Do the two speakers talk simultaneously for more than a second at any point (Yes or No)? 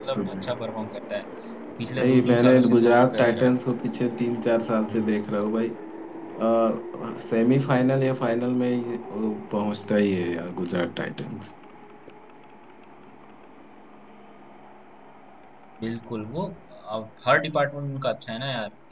Yes